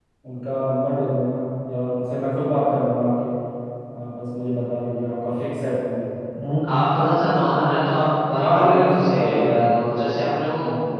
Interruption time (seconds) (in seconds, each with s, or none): 8.4 s